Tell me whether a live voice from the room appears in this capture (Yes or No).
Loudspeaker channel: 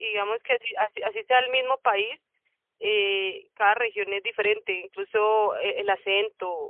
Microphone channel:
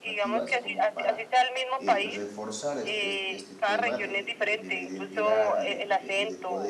Yes